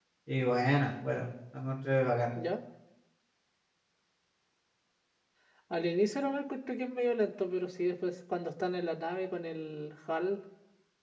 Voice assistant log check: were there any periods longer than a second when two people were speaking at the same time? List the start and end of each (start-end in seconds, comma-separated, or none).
none